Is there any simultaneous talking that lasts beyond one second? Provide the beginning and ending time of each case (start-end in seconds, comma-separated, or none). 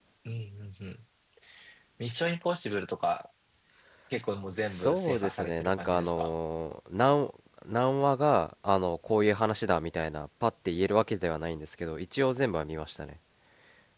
4.7-6.3